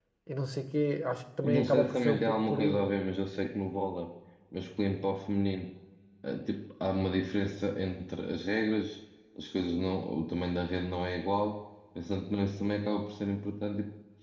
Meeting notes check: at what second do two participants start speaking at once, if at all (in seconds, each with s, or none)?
1.4 s